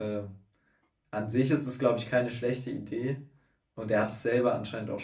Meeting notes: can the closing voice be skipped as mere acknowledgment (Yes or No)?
Yes